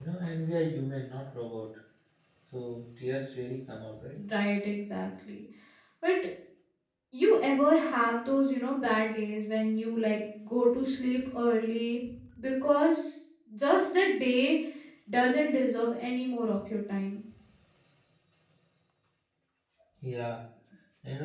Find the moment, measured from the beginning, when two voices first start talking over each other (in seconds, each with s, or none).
none